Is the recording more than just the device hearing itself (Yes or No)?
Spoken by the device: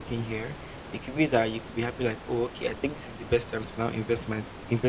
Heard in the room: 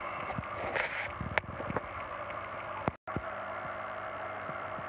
No